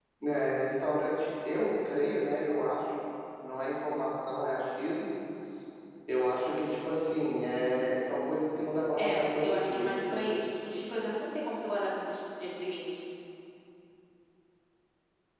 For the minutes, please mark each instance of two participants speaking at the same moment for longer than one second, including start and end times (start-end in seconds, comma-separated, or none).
9.0-10.2